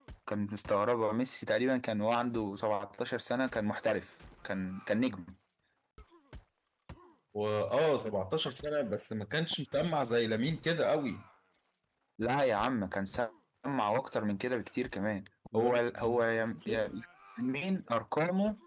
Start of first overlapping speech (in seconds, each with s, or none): 15.5 s